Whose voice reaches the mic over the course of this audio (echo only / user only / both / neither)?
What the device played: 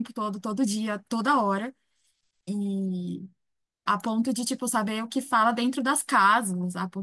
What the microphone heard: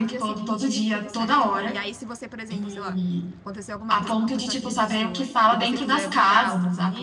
both